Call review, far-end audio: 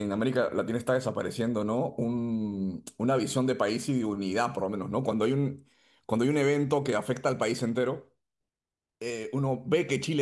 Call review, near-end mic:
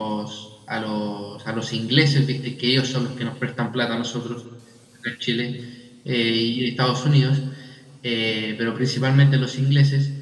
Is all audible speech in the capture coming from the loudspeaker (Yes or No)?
No